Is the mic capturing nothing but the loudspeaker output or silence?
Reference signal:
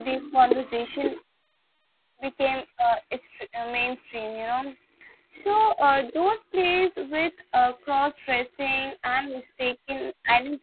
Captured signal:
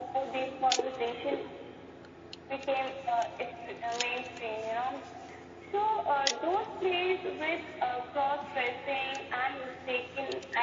Yes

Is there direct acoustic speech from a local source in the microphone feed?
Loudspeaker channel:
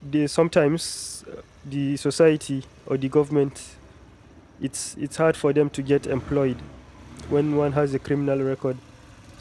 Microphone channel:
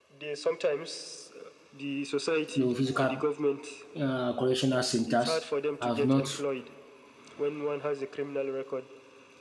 Yes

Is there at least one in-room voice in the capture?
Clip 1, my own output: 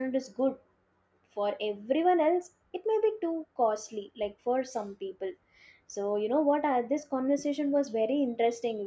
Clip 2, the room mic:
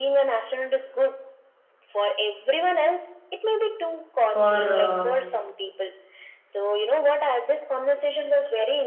Yes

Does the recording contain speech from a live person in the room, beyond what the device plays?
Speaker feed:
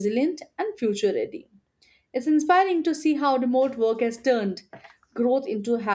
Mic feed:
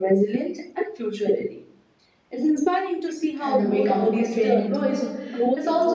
Yes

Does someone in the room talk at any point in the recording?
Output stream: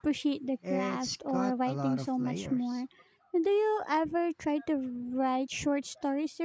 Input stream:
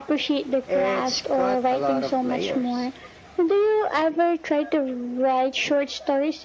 No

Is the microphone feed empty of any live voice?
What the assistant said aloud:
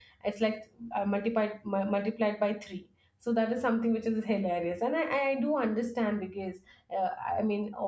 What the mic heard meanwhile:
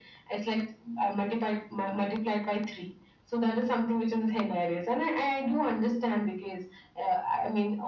Yes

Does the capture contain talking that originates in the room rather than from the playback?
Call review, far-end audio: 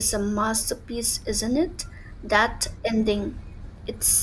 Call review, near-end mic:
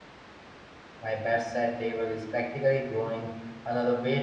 Yes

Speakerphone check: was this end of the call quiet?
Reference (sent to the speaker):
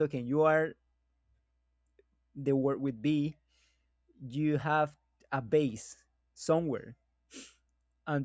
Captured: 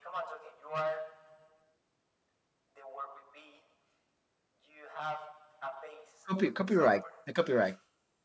No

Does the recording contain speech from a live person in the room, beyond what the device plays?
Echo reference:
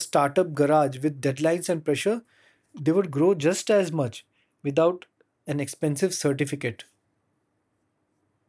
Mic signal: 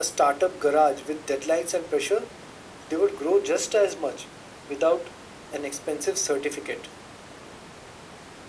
No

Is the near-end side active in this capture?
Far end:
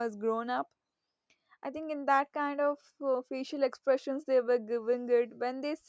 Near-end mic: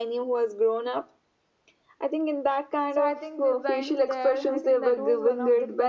Yes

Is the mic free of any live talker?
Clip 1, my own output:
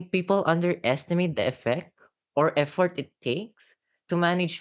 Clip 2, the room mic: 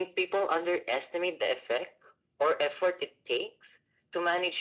Yes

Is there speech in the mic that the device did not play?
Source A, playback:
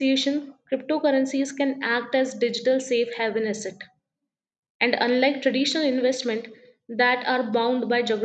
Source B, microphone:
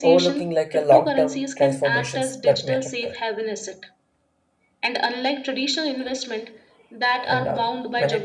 Yes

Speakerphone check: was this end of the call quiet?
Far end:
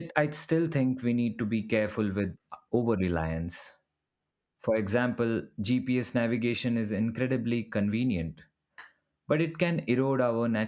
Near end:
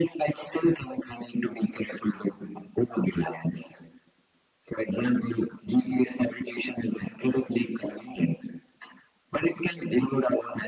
Yes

